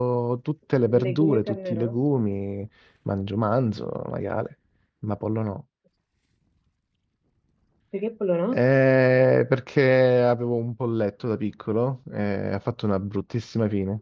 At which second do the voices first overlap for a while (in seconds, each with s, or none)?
0.8 s